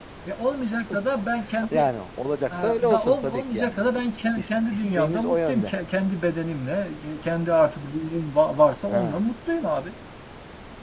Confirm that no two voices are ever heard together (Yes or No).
No